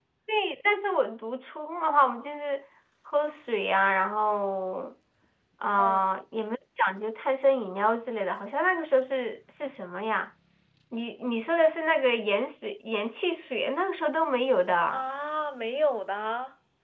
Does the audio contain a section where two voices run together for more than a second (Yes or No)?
No